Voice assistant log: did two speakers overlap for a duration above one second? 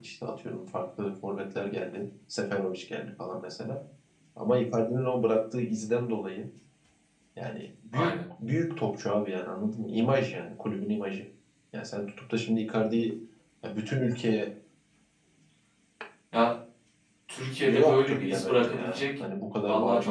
Yes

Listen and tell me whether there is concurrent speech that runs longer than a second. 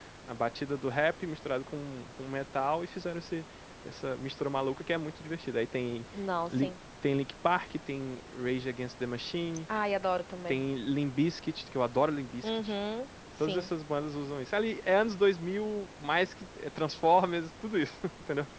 No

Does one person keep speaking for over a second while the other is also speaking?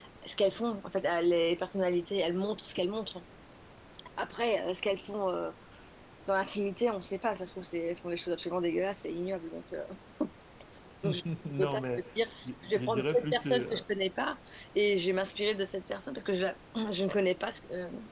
Yes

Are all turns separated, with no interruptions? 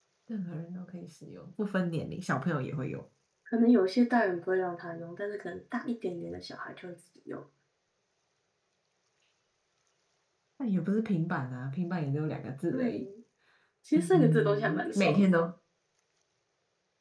No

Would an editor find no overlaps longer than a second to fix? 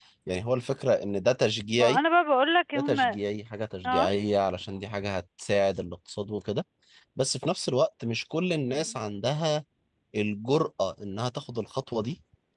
Yes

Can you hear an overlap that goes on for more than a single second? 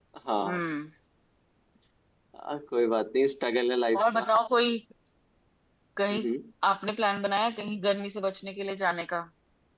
No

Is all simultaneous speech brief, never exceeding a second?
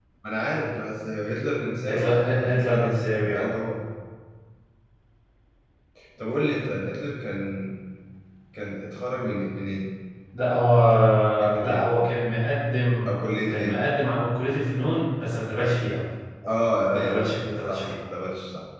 No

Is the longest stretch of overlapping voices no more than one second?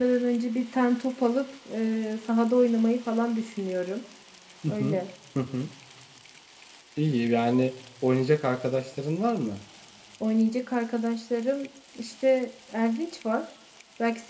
Yes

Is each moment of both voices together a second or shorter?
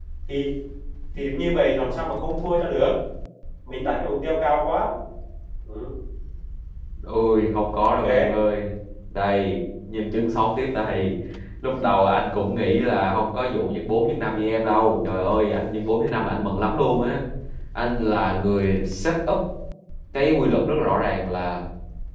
Yes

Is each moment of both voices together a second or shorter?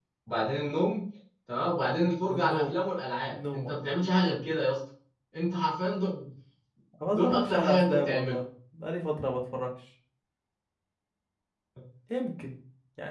No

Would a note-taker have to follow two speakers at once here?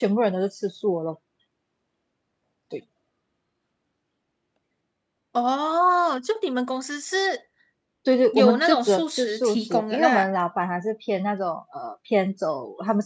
Yes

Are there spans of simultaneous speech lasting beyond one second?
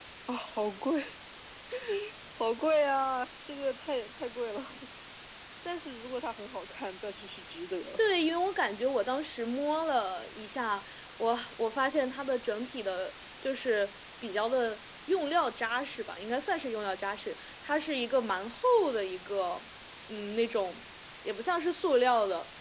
No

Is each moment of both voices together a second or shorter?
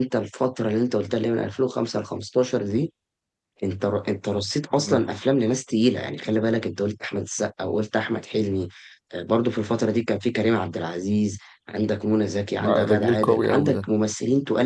No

